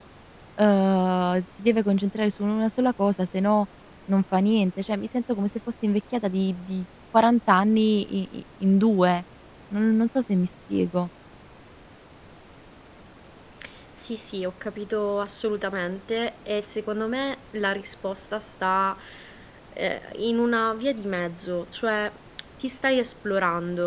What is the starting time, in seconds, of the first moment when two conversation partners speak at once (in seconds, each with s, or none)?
none